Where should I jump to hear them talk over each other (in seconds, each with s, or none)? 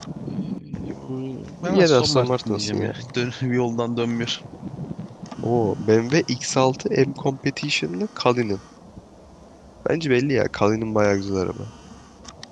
1.6 s